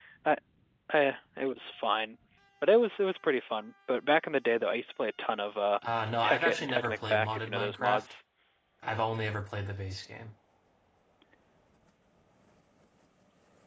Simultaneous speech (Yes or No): Yes